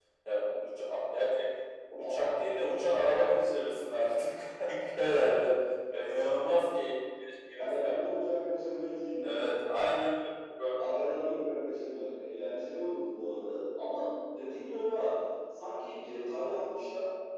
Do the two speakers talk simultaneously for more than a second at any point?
No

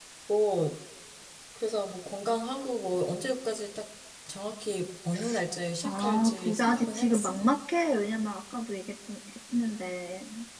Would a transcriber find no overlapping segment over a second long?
No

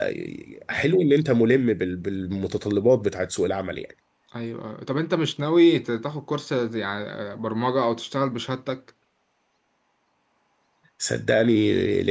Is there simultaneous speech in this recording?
No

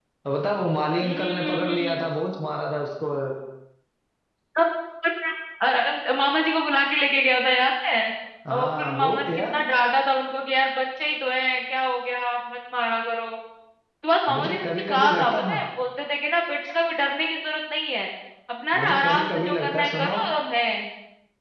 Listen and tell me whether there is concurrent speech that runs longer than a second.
Yes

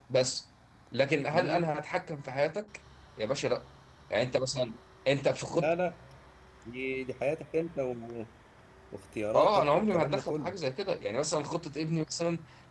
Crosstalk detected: Yes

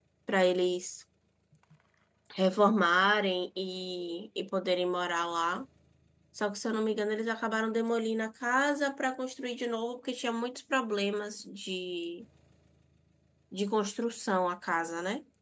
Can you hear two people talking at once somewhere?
No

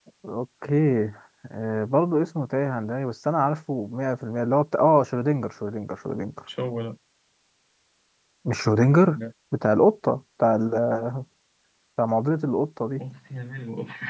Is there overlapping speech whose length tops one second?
No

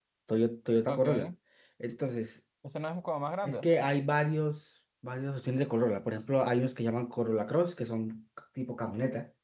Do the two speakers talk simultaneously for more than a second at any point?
No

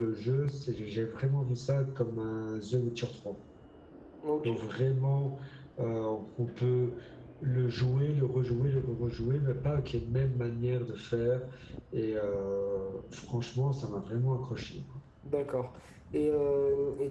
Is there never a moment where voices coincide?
Yes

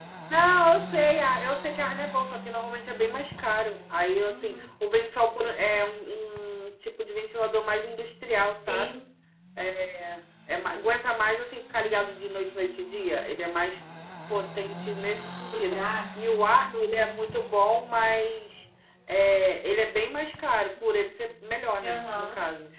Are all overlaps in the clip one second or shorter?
Yes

